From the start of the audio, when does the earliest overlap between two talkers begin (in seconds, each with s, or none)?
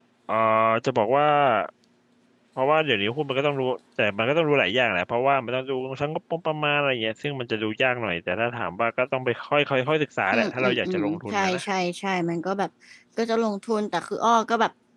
10.3 s